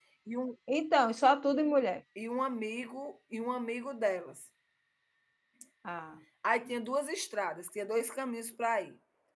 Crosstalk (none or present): none